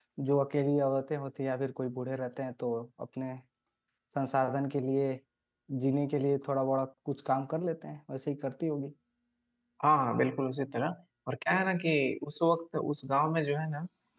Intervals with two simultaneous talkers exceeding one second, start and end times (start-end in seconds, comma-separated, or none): none